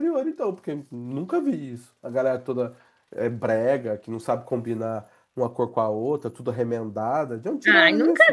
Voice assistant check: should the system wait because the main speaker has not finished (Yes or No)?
No